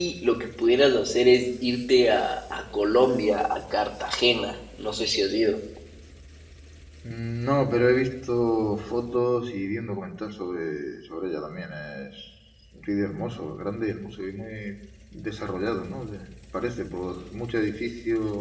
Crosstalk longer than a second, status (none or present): none